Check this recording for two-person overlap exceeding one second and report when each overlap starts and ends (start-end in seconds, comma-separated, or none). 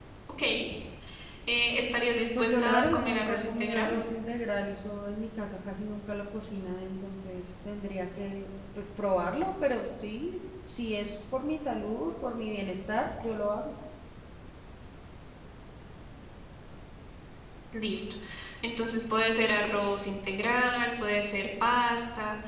2.4-3.9